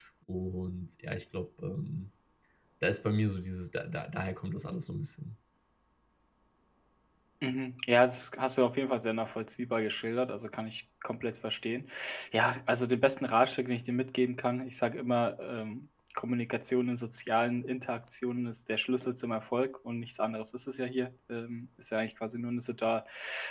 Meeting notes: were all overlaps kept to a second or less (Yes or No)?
Yes